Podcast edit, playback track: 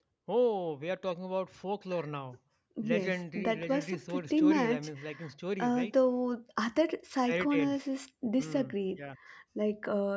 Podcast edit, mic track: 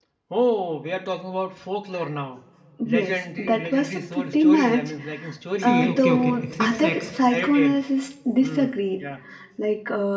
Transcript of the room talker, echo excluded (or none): See, okay, okay, except sex,